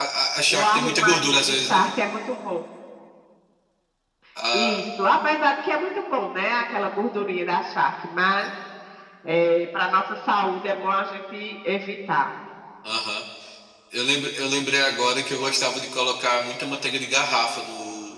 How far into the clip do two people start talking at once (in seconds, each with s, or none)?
0.5 s